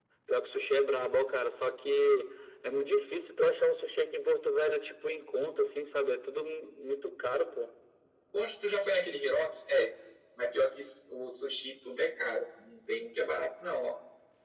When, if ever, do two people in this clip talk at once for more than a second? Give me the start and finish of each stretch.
none

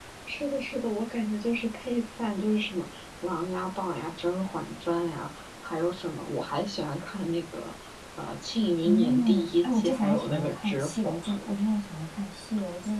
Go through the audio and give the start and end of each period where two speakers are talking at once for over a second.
8.8-11.1

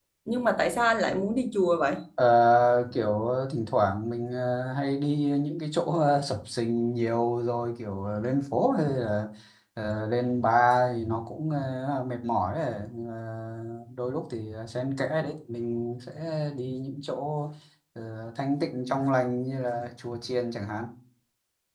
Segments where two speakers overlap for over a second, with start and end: none

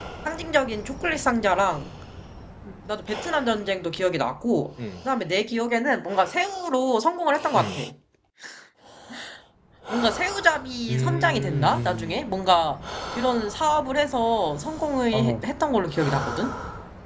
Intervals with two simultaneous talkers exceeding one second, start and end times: 10.9-12.2

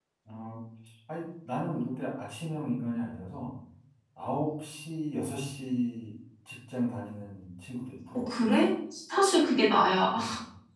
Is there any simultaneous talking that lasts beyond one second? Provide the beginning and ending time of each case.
none

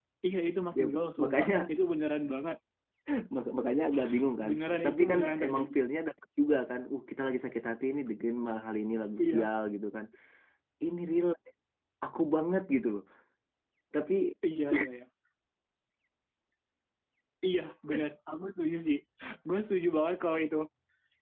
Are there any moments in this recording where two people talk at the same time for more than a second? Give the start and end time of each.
4.4-5.7

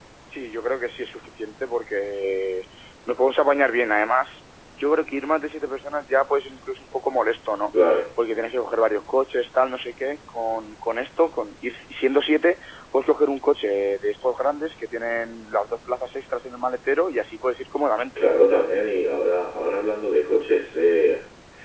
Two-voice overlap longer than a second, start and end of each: none

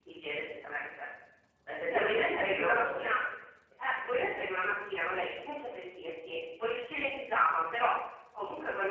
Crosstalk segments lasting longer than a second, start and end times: 1.9-3.1

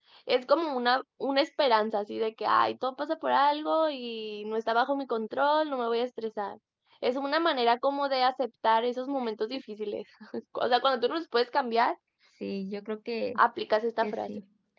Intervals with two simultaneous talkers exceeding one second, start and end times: none

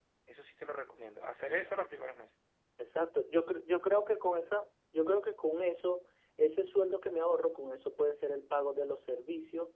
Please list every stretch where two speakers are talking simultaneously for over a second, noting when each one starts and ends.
none

